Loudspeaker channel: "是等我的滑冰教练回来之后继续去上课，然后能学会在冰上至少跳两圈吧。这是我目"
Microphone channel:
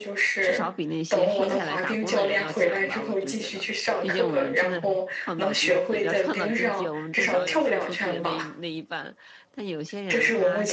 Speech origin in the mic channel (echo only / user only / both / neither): both